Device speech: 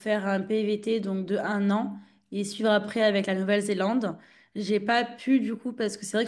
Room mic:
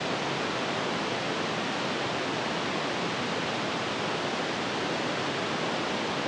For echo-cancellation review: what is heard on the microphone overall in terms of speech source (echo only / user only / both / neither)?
neither